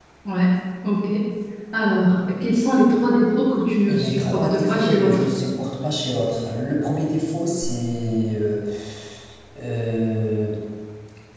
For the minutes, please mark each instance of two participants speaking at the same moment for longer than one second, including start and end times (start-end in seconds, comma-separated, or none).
3.9-5.2